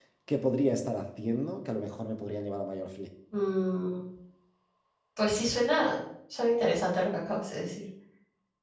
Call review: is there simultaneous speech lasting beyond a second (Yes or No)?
No